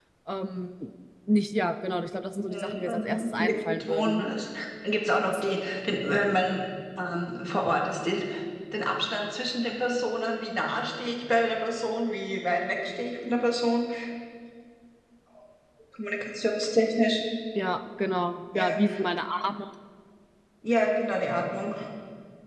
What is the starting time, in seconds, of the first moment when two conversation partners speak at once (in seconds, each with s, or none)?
2.5 s